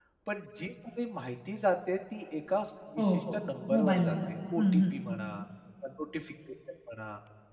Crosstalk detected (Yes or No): Yes